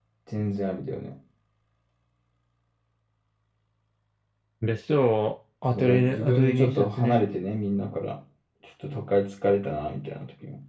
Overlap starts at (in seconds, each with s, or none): 5.7 s